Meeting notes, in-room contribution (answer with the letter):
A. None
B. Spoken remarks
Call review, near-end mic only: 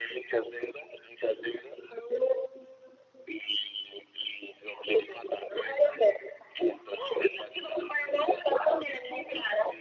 A